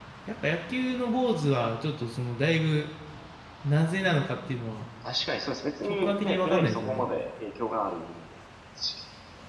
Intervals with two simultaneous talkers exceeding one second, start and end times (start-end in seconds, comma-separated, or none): 5.9-7.1